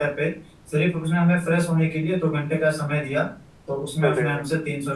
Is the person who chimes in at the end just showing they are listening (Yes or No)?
Yes